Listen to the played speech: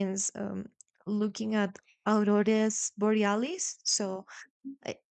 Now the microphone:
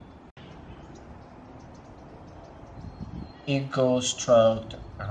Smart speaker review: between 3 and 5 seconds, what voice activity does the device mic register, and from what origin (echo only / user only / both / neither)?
user only